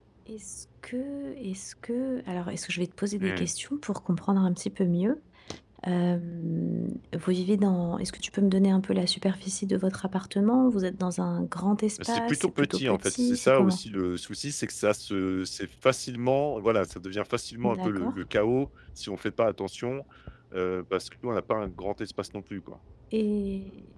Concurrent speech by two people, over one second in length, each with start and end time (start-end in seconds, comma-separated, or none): 12.0-13.8